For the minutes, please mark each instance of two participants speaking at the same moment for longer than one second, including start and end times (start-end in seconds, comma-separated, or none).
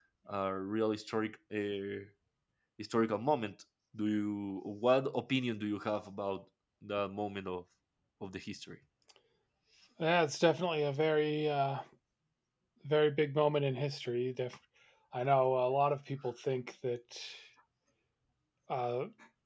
none